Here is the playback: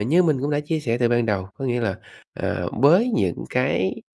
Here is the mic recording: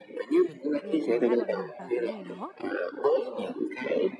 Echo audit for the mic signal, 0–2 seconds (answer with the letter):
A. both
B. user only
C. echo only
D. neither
A